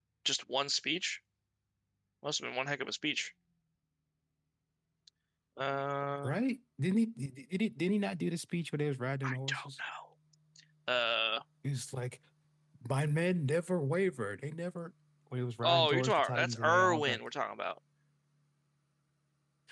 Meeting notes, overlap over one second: present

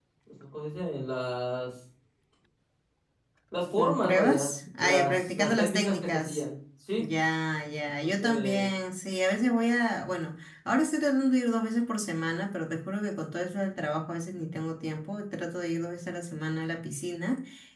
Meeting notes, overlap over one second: present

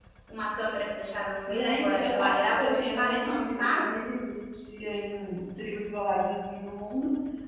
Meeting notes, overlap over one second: present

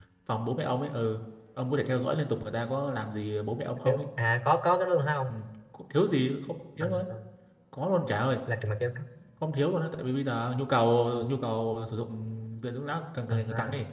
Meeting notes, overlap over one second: none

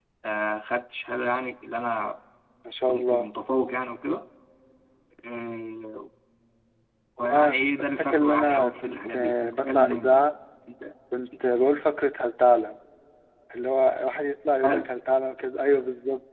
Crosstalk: present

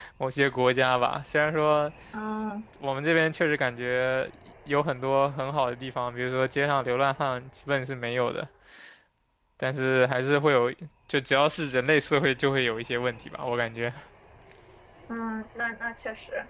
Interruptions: none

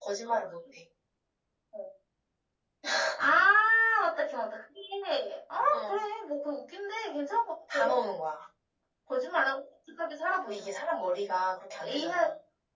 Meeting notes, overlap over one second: none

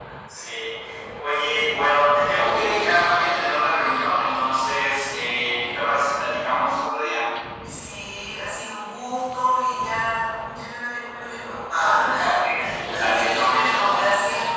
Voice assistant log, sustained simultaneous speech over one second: present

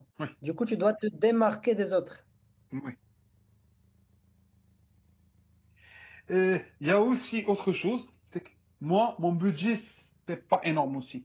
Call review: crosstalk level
none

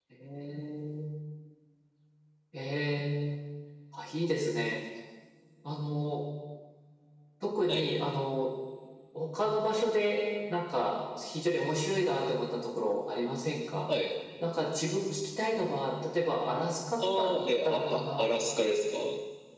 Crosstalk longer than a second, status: present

